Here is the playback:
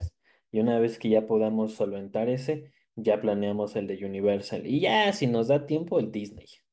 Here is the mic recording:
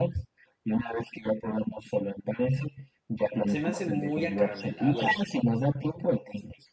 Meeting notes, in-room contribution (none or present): present